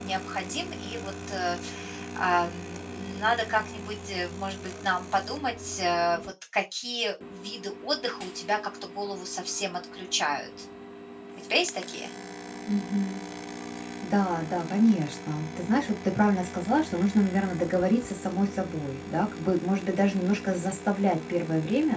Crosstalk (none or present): none